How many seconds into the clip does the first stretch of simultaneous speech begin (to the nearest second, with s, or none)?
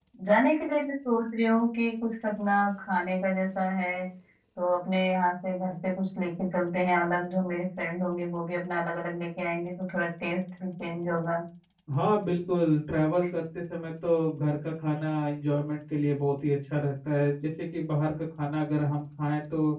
none